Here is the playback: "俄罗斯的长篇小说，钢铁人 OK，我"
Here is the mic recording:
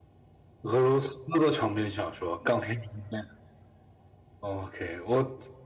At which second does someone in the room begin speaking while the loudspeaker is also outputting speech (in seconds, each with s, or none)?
none